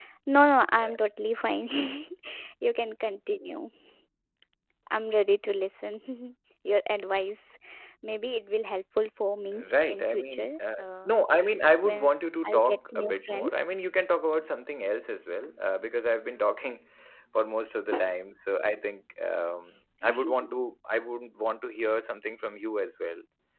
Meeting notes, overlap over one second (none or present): present